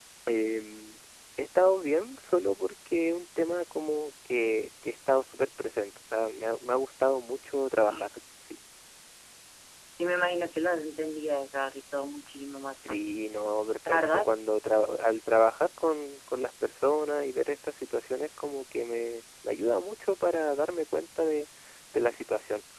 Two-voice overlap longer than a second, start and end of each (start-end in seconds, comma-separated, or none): none